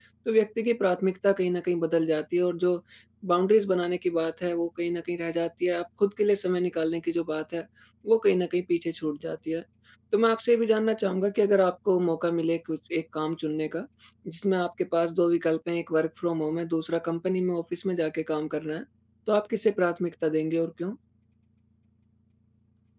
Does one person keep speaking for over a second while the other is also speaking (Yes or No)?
No